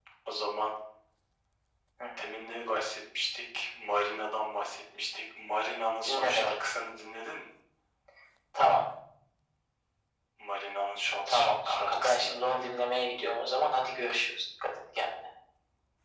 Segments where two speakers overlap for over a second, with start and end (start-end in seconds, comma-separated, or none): 11.3-12.8